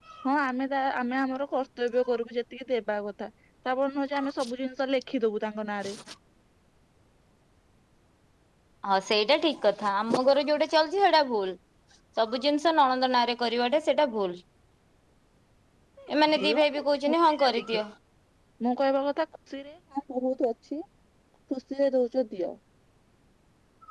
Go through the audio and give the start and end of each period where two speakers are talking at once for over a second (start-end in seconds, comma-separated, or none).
16.4-17.8